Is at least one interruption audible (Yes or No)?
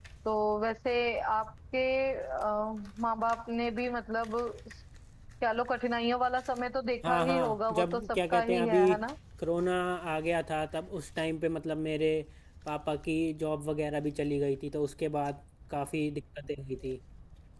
Yes